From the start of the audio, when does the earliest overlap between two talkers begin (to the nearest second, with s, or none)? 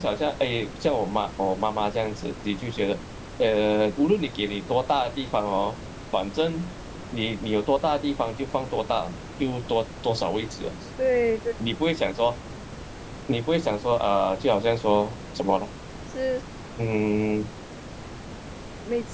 none